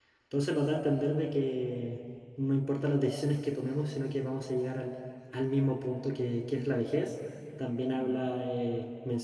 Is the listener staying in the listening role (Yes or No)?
Yes